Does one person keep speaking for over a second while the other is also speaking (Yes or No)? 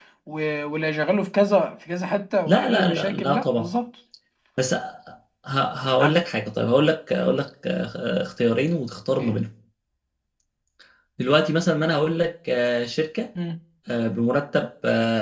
Yes